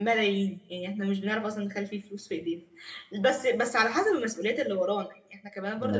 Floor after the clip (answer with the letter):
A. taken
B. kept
B